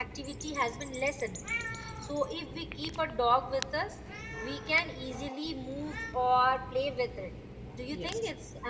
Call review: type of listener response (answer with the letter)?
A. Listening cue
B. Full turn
B